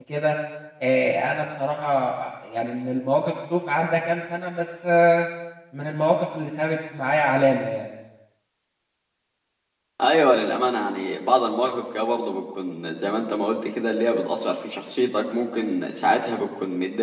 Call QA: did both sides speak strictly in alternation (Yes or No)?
Yes